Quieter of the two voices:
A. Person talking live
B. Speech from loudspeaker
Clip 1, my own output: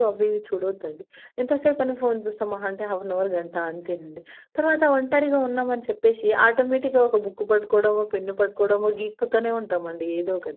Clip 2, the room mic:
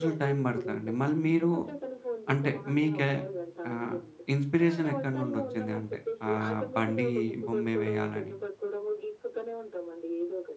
B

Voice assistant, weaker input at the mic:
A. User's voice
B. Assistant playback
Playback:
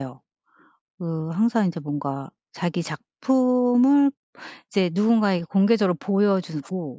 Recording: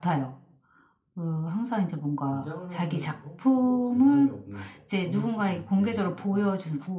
A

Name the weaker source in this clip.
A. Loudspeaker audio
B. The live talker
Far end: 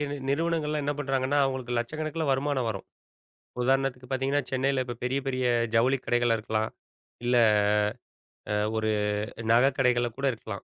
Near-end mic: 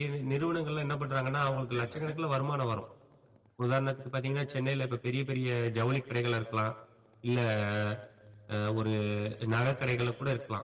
B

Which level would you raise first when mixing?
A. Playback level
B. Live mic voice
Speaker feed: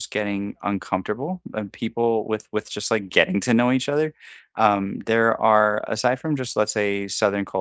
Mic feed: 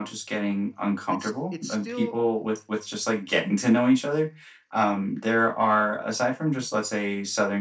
B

